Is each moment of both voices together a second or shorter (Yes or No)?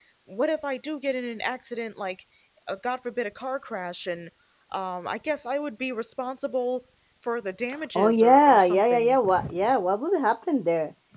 No